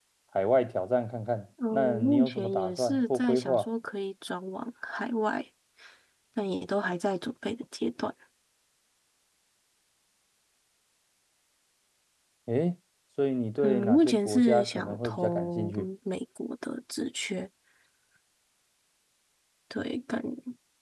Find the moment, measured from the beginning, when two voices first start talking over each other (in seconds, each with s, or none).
1.7 s